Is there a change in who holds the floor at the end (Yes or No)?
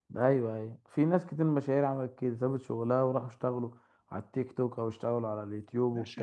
Yes